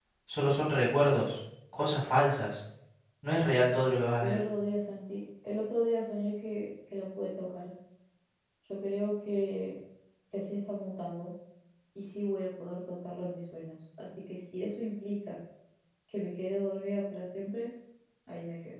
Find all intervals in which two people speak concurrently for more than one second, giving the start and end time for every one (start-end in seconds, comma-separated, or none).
none